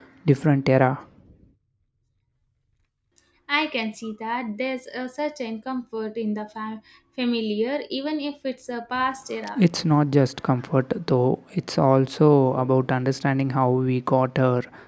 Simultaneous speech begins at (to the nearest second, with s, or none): none